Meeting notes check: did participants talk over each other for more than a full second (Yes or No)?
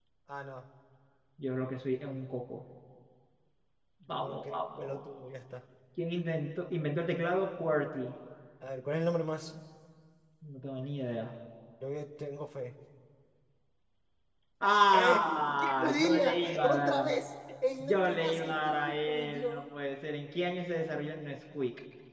Yes